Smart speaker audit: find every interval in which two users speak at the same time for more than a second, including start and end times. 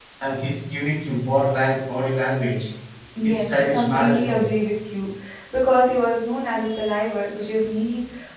3.2-4.5

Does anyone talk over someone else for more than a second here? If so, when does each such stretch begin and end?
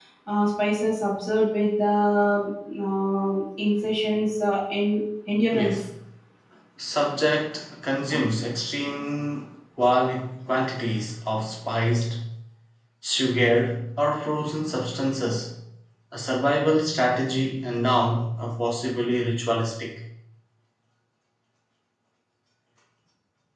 none

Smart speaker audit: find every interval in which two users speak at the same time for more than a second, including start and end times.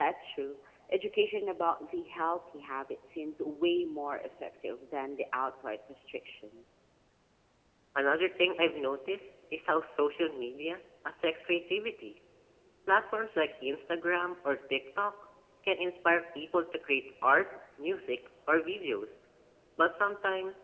none

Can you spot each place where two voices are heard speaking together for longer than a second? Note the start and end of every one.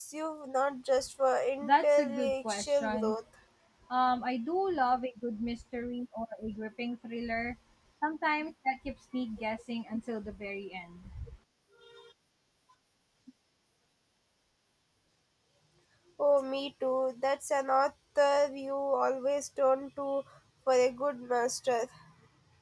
1.6-3.2

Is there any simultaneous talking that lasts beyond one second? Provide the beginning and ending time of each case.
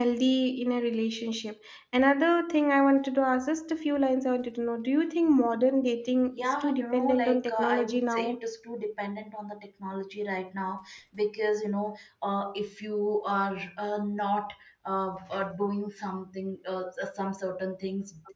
6.3-8.4

